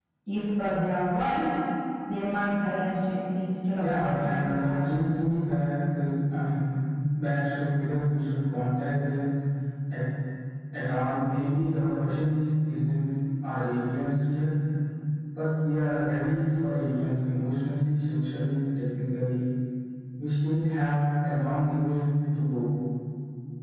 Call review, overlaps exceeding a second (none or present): present